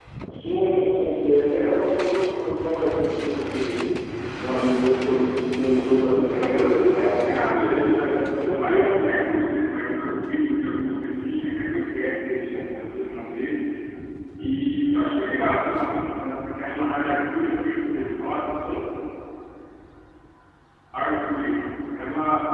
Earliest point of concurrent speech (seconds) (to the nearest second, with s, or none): 6 s